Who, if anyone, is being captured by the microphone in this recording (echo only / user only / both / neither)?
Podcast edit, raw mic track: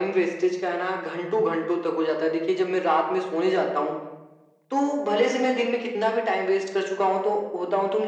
echo only